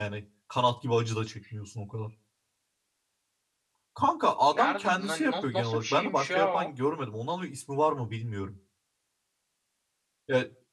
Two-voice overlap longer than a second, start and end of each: 4.5-6.7

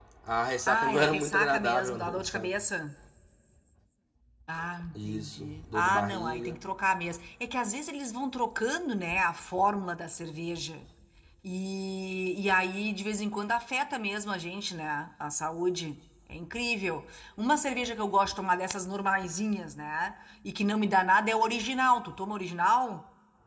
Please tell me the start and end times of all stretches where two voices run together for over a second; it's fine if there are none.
0.7-2.6, 5.0-6.6

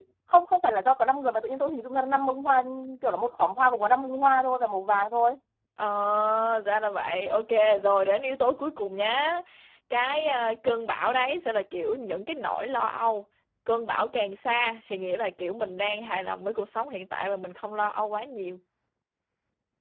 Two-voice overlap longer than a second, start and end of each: none

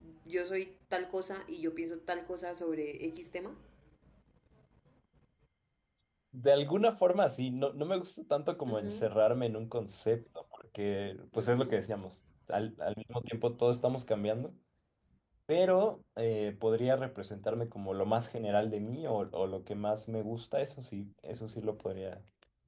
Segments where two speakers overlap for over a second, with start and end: none

